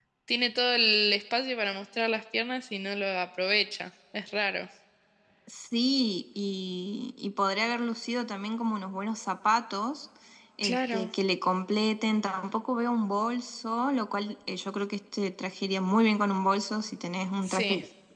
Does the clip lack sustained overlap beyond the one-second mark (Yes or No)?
Yes